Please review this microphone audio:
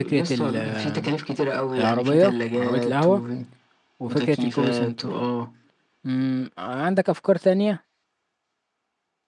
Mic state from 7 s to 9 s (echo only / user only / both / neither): user only